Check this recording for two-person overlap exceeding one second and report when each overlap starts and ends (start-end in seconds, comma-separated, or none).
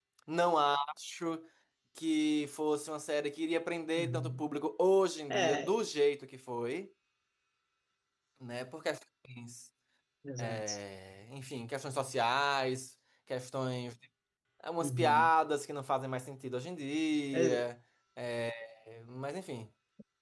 none